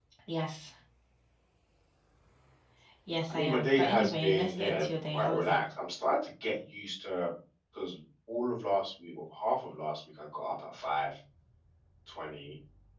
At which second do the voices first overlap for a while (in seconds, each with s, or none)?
3.3 s